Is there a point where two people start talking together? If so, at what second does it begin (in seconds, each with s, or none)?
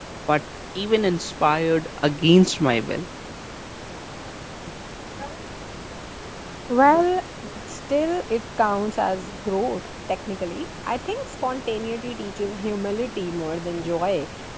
none